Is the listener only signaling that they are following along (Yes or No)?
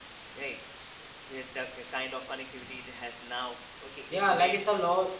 No